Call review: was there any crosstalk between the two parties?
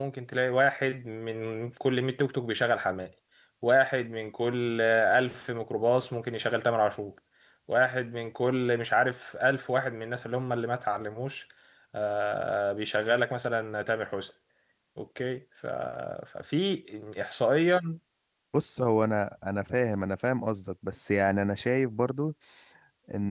No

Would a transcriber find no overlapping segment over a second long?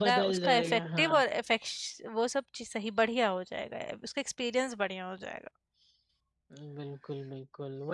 No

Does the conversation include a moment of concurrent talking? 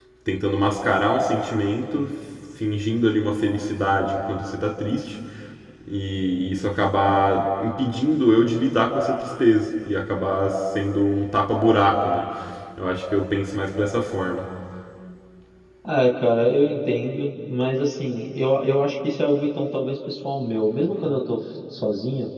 No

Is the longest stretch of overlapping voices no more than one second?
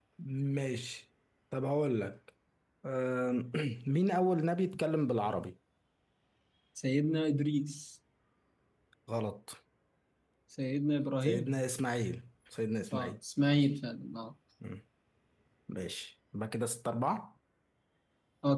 Yes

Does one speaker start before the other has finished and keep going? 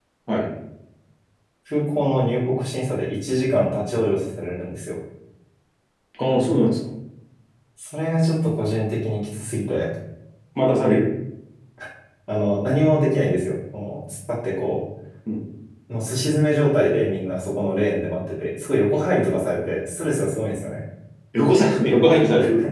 No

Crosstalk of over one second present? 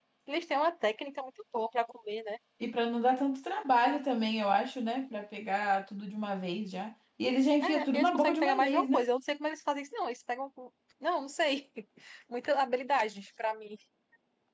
Yes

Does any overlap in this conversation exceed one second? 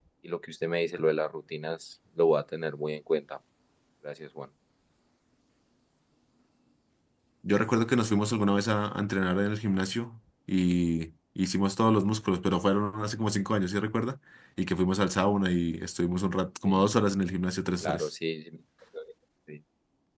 No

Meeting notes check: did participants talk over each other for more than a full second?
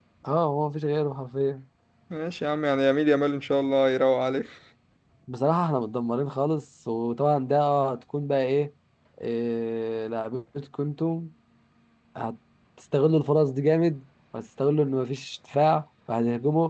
No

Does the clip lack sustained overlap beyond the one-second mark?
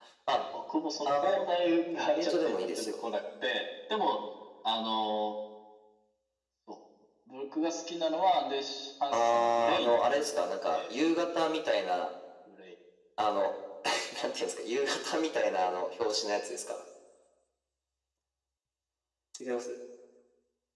No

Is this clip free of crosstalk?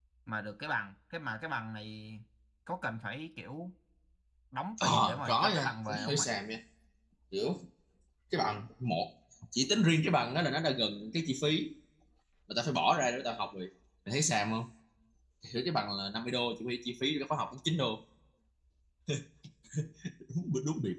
No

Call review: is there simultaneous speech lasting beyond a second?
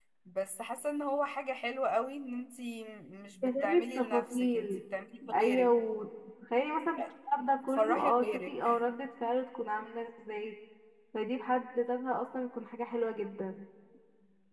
Yes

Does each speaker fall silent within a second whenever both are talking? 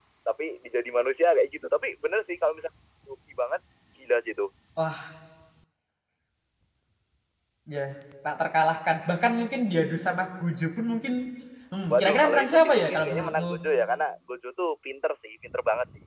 No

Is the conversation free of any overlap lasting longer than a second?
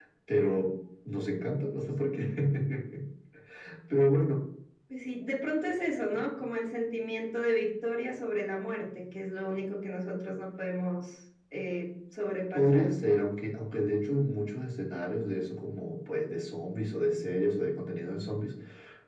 Yes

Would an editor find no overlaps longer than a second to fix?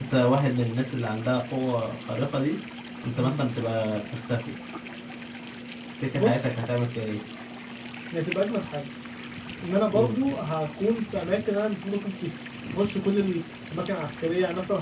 Yes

